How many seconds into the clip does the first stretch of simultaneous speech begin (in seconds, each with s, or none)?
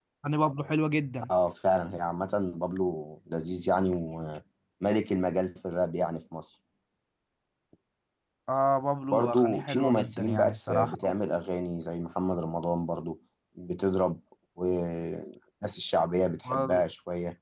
9.1 s